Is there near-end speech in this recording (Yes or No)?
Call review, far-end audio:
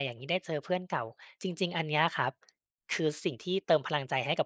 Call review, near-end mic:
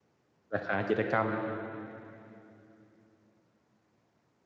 Yes